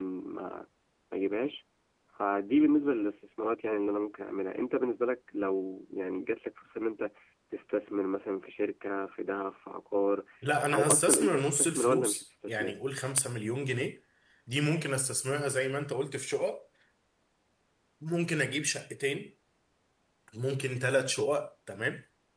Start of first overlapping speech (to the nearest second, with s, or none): 11 s